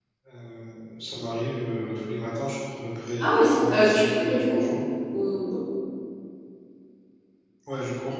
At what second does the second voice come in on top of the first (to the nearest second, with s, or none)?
3 s